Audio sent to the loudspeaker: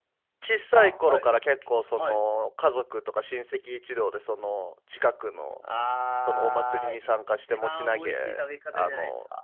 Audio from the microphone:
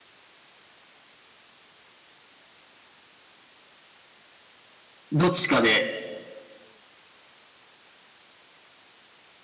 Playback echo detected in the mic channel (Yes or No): No